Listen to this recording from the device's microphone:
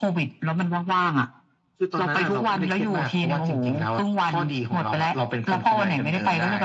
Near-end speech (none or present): none